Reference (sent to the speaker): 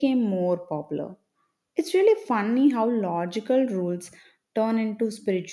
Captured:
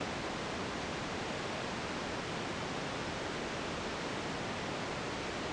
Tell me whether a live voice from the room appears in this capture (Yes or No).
No